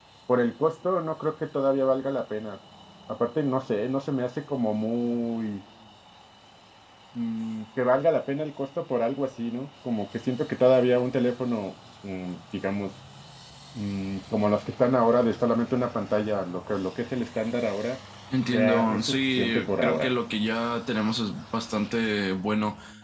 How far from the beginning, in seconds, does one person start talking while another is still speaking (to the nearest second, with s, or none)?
19 s